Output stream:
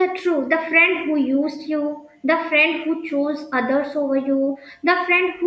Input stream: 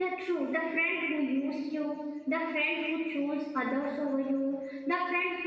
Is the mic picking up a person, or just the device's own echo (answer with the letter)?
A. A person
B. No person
B